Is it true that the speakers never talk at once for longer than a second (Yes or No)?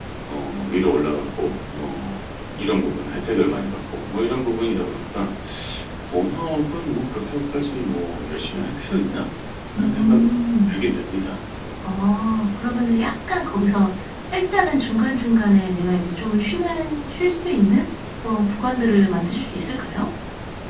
Yes